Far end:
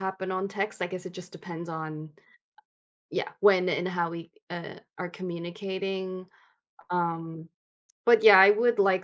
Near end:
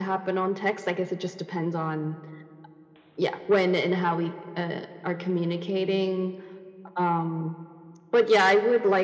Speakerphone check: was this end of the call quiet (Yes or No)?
Yes